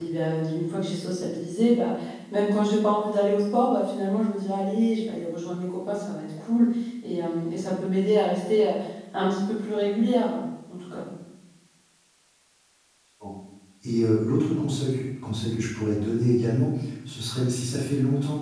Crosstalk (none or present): none